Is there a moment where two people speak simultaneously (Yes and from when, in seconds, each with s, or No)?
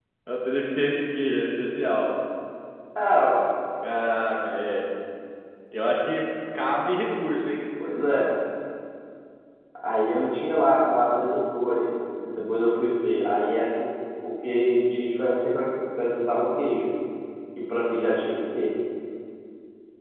No